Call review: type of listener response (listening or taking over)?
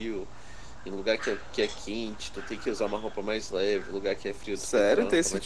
taking over